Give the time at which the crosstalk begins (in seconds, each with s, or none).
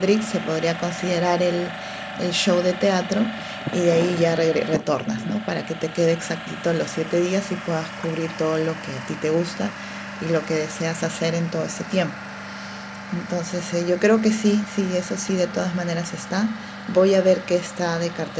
none